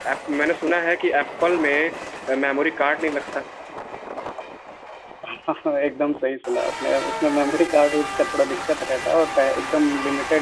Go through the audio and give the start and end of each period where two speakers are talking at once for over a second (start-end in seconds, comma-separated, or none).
none